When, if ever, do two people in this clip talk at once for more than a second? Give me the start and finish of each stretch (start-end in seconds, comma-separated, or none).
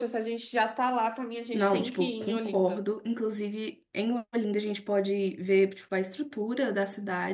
1.5-2.8